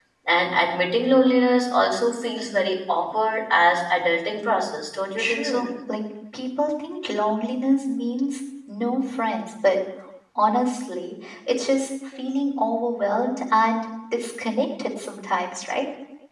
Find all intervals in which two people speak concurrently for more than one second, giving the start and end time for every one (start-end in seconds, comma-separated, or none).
none